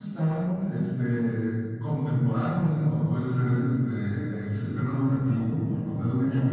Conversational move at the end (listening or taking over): listening